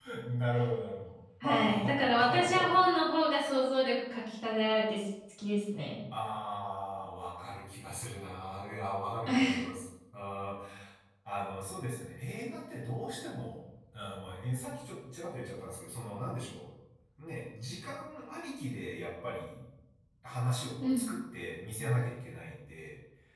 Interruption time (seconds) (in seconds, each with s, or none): 1.4 s